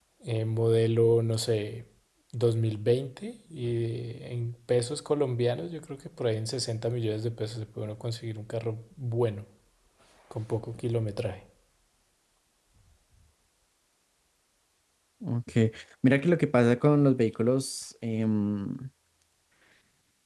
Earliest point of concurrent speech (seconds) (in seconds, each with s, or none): none